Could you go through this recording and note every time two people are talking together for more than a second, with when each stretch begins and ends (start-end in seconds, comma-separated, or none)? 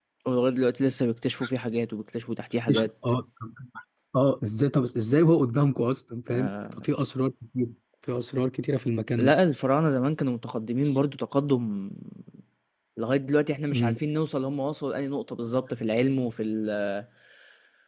none